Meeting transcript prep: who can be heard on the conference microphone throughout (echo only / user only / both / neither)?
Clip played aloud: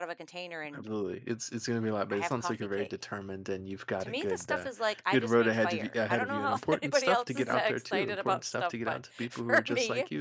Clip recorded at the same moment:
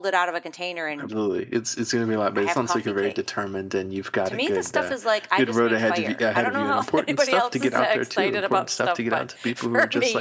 echo only